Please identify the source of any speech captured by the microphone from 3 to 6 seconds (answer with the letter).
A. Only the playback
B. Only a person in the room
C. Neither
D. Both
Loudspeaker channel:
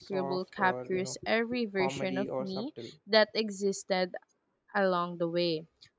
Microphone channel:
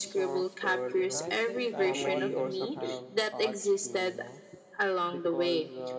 D